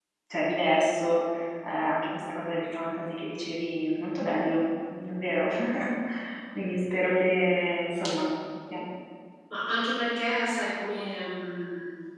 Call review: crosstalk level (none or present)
none